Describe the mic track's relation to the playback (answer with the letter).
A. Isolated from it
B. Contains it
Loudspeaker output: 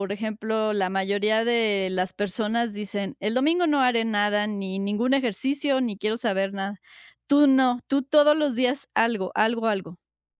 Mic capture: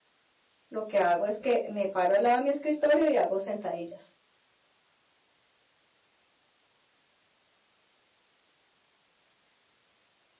A